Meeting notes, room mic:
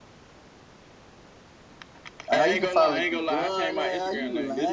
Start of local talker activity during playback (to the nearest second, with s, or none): 2 s